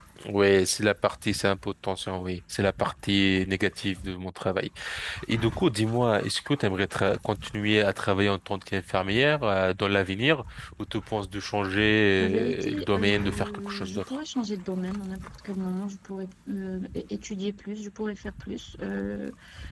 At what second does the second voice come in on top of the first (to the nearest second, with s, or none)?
12 s